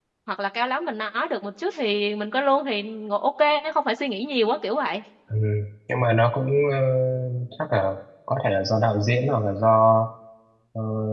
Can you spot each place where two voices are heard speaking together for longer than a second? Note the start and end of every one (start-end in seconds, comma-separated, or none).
none